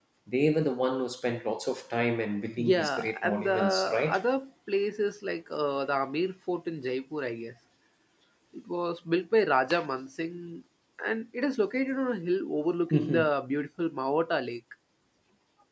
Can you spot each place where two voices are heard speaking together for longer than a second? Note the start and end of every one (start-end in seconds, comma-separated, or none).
2.6-4.2